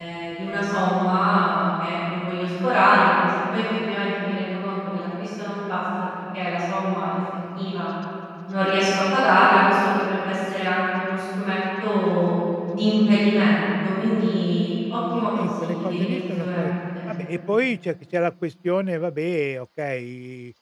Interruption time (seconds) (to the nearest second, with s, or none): 15 s